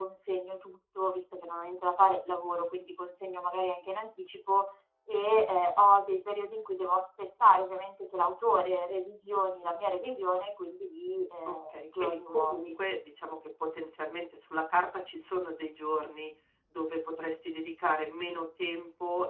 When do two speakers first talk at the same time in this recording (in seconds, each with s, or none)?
11.4 s